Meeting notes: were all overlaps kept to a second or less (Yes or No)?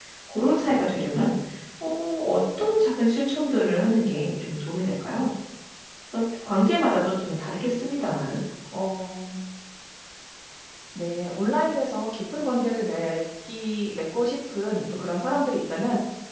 Yes